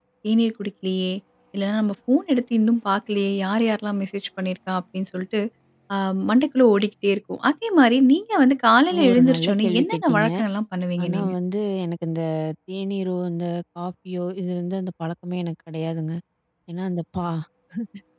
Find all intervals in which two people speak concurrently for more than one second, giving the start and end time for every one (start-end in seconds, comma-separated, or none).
9.1-10.3